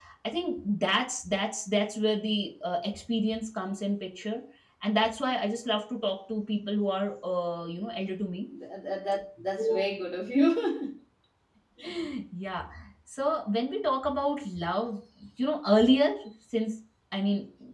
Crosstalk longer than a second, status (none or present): none